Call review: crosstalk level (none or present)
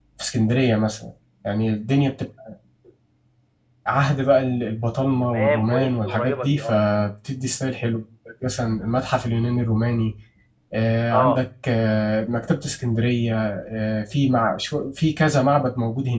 present